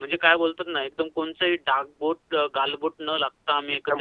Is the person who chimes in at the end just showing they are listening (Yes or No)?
No